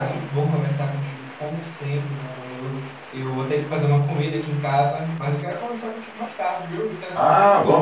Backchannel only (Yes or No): No